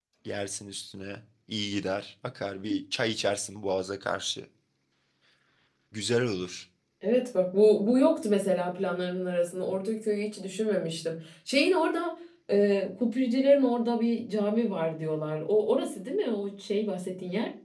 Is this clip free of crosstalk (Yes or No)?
Yes